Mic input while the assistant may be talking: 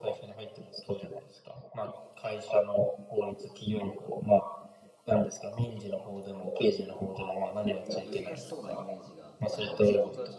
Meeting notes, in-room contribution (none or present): present